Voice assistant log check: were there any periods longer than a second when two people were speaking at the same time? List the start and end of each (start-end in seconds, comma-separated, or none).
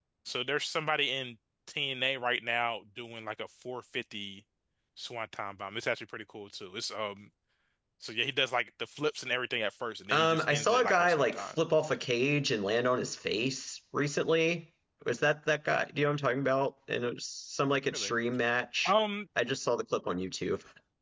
10.1-11.6